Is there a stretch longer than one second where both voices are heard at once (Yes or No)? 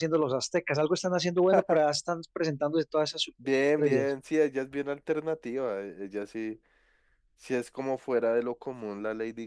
No